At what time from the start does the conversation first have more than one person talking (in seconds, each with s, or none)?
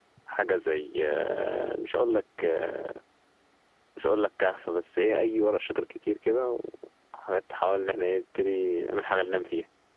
none